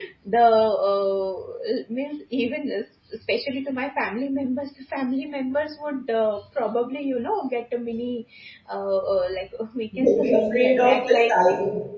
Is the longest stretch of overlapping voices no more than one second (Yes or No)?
No